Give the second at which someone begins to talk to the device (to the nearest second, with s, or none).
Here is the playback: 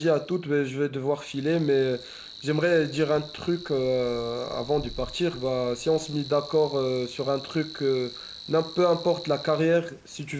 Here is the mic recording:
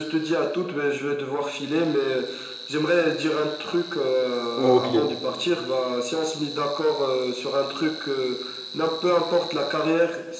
5 s